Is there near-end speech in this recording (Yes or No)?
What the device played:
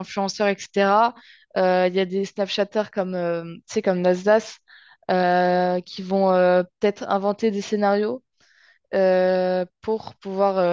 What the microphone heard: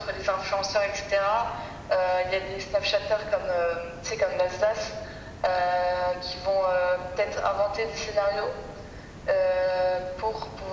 No